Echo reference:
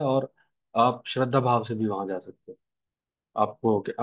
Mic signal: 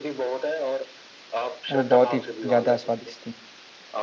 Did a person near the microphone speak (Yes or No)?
Yes